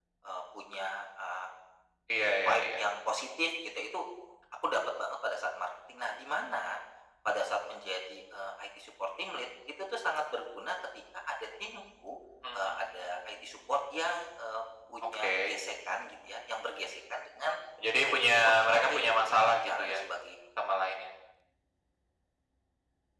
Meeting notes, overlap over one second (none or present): present